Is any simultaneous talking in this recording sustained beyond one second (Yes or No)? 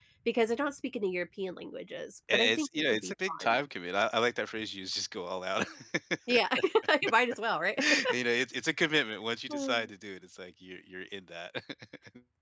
Yes